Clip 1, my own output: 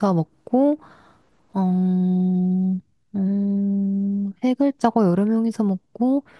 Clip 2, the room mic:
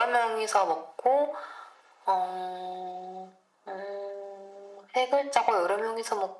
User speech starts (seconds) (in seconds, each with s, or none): none